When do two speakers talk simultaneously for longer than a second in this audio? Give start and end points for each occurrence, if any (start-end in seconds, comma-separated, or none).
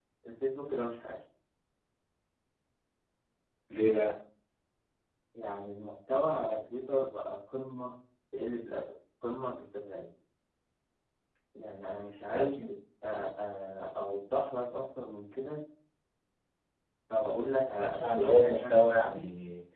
17.8-19.2